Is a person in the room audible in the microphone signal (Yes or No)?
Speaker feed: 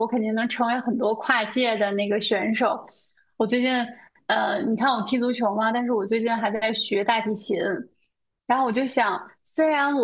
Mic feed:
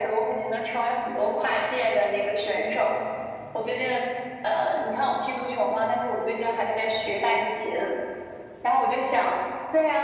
No